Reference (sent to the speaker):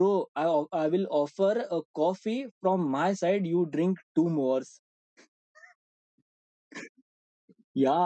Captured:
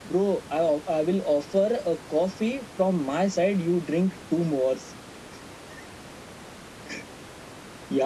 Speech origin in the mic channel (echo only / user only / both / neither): echo only